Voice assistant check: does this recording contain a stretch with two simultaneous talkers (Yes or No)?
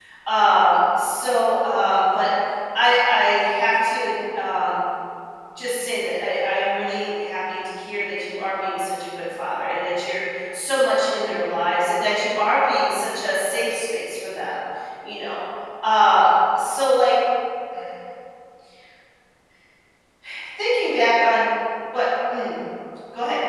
No